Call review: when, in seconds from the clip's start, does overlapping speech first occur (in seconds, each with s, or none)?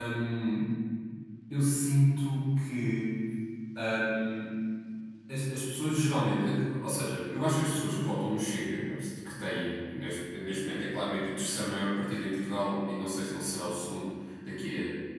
none